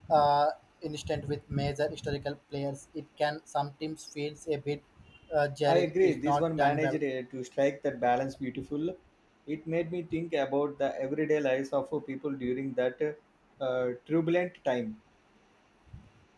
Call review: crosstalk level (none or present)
present